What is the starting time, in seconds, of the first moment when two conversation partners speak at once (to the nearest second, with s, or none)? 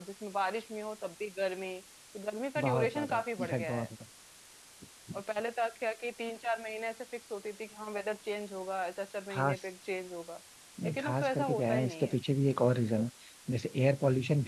3 s